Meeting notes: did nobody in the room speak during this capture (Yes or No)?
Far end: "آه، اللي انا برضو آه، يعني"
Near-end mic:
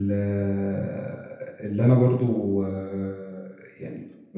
Yes